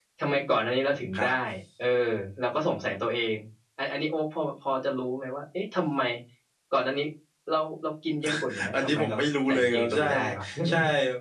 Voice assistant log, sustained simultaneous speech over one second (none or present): present